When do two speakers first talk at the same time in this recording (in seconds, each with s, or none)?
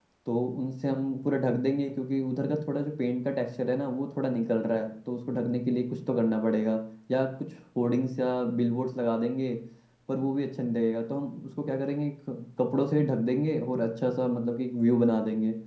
none